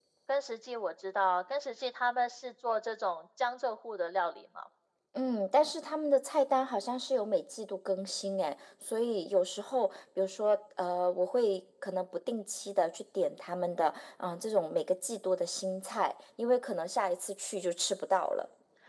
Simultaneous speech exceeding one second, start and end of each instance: none

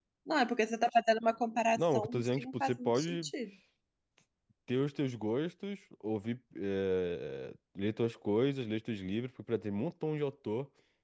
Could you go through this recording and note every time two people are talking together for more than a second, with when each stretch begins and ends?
1.8-3.3

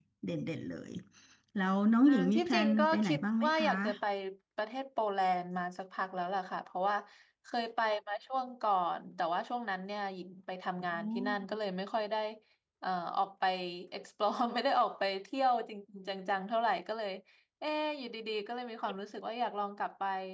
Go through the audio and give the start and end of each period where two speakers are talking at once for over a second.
2.0-3.7

